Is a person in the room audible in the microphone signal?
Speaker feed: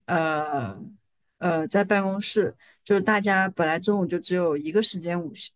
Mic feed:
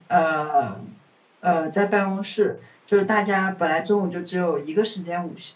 No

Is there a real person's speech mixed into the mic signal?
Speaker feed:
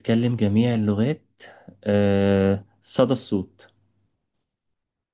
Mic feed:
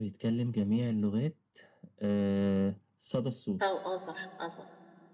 Yes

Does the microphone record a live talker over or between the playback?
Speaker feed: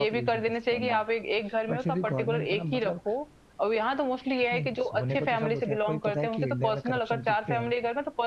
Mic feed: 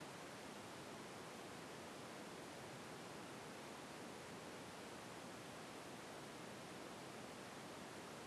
No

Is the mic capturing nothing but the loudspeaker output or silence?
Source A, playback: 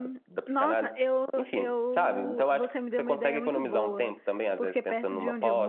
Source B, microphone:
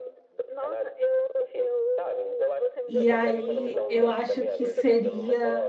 No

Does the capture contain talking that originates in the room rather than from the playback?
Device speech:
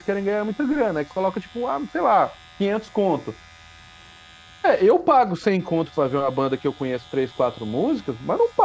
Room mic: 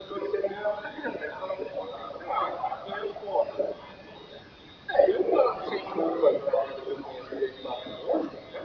No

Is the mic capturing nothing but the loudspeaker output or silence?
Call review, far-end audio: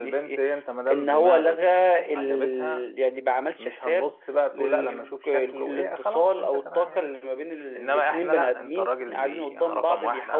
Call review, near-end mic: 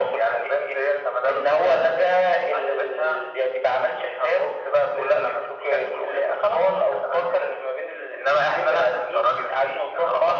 Yes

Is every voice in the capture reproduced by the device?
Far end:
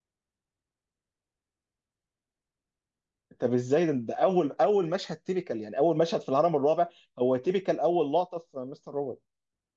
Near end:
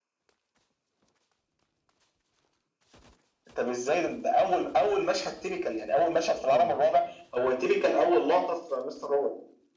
No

